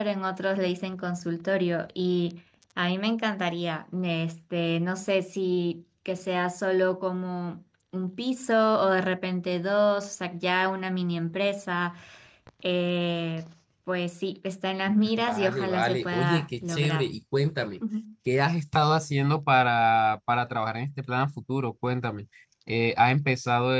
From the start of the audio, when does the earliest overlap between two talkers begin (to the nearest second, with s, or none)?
15 s